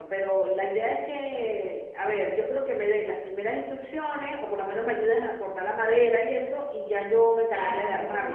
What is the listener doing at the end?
taking over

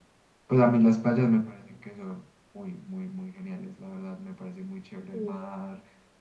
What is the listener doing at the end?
listening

